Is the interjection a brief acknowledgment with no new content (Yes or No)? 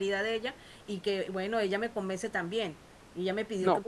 Yes